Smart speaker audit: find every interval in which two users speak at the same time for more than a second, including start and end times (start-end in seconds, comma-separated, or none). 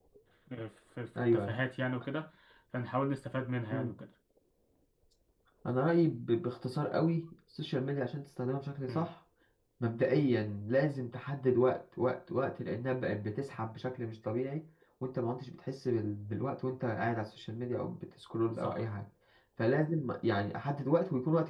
none